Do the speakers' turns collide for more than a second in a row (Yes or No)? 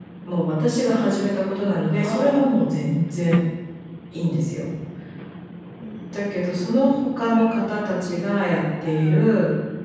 No